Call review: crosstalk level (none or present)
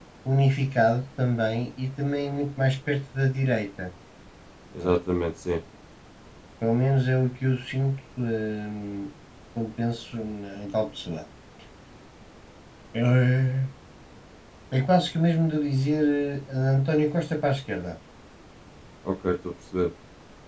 none